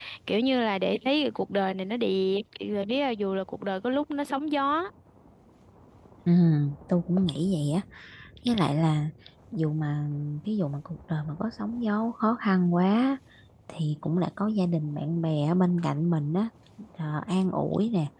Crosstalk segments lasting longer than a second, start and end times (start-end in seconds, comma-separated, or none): none